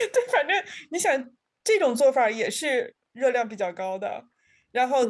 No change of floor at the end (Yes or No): Yes